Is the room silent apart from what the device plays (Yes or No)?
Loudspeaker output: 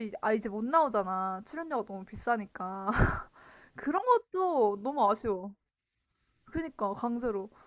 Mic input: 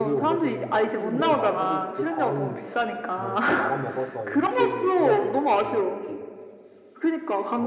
No